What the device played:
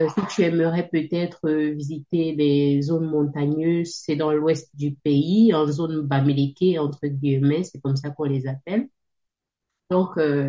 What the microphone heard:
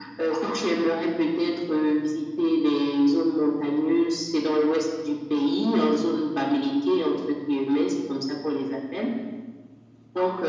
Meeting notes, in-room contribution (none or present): none